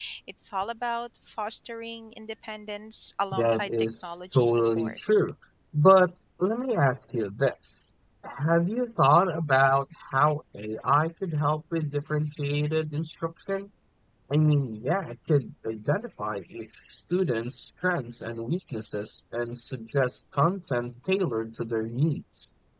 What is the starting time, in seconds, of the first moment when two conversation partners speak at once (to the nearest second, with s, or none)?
3 s